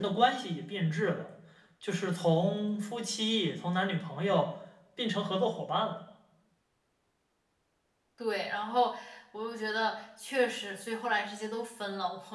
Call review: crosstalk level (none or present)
none